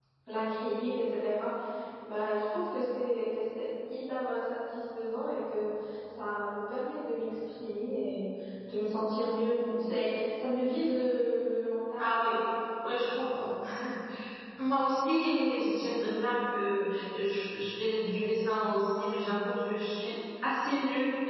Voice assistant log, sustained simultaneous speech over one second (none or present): none